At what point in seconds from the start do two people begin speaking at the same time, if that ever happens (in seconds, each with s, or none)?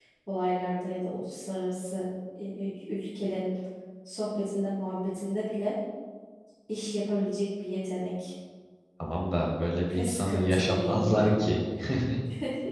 9.9 s